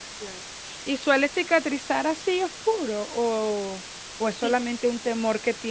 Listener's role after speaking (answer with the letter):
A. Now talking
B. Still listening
B